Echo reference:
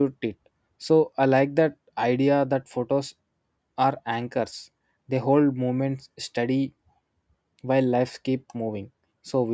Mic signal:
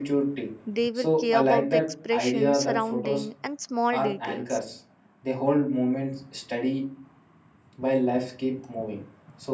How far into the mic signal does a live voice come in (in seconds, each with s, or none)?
0.7 s